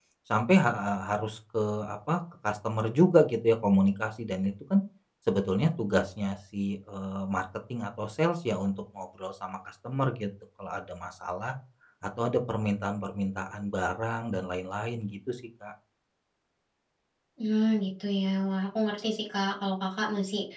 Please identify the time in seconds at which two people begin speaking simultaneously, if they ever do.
none

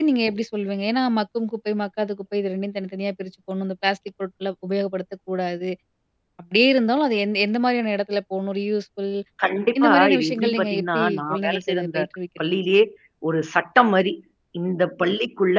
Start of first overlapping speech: 10 s

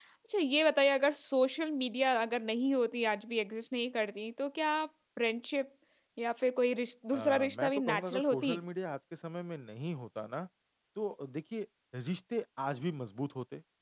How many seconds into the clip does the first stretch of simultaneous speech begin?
7 s

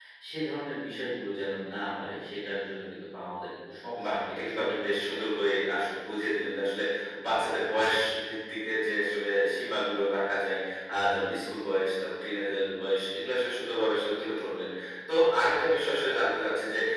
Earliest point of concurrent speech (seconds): 4 s

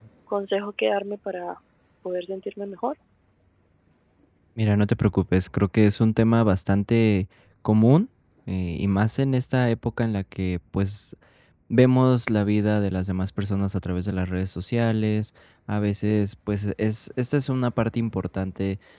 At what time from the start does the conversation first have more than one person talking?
none

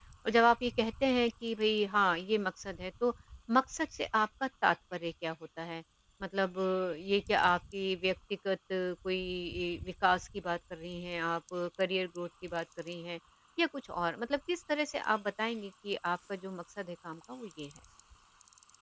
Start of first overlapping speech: none

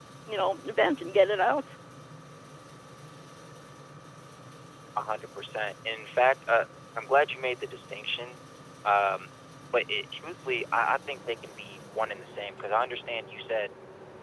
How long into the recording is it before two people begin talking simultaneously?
none

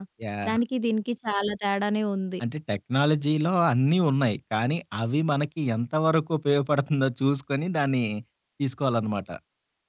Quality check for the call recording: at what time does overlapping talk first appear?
none

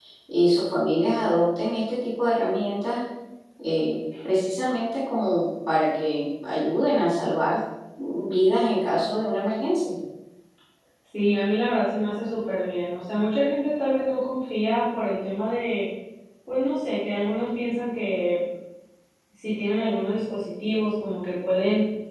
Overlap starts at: none

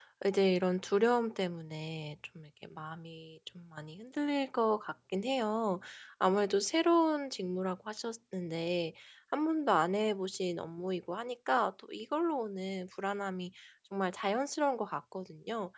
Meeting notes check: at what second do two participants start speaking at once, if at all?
none

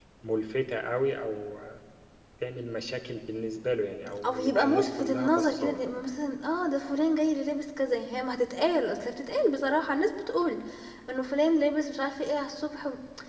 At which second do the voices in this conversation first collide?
4 s

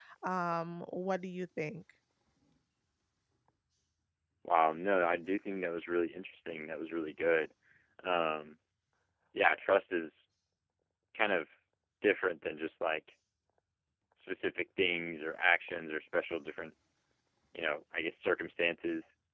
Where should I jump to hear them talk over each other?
none

